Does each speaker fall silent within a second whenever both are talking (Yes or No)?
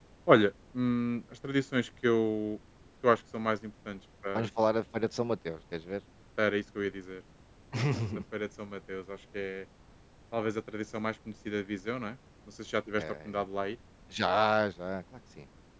Yes